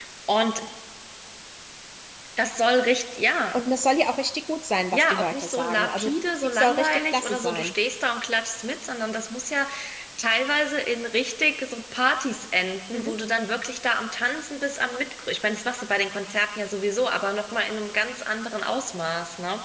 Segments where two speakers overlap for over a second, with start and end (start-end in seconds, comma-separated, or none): 4.9-7.7